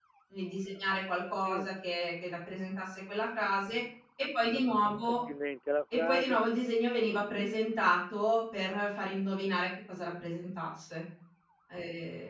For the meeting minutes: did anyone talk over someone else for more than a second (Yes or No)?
No